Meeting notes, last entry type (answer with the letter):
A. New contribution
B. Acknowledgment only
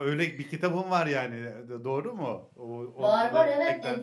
A